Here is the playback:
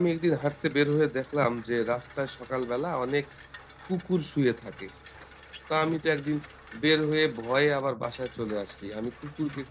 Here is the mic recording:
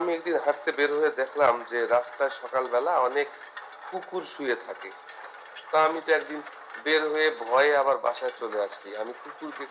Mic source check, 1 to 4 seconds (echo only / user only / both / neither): echo only